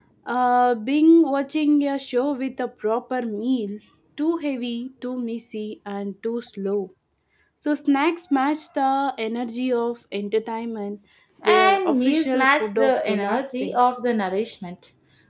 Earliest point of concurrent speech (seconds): 11.4 s

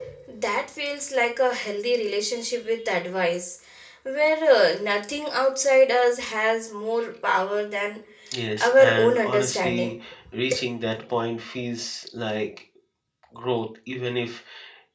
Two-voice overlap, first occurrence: 8.6 s

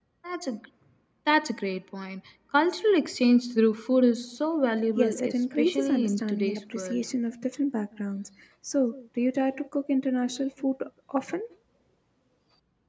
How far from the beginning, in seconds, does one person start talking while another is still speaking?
5.0 s

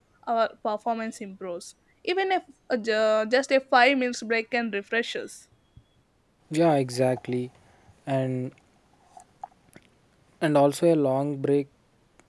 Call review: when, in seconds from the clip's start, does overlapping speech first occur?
none

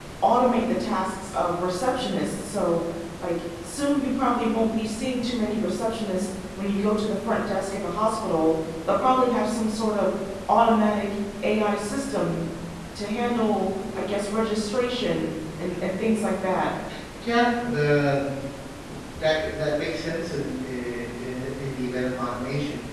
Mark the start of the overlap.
none

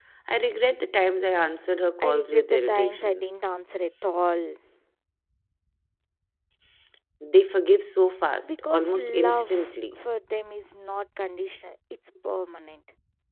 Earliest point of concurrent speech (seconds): 2.0 s

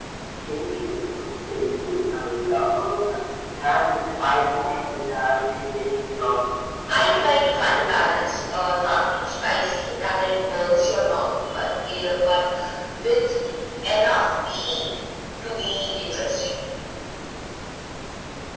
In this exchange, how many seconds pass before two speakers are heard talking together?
6.9 s

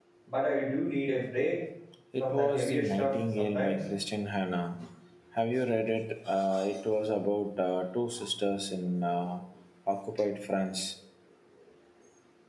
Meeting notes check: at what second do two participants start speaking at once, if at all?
2.2 s

